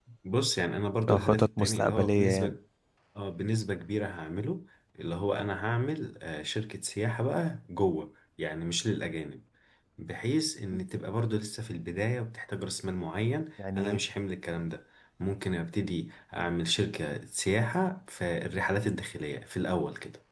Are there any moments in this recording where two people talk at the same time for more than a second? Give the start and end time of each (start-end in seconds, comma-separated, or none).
1.1-2.5